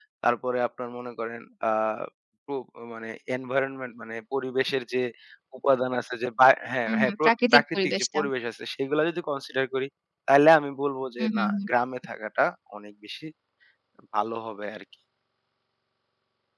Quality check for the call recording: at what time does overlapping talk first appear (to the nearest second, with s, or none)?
7 s